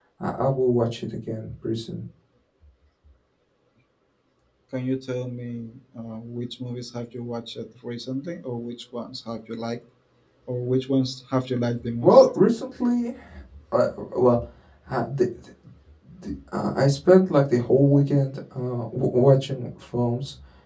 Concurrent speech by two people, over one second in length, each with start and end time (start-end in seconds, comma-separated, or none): none